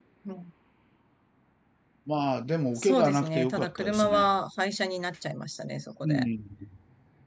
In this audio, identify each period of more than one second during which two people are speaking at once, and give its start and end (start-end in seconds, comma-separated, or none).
2.8-4.3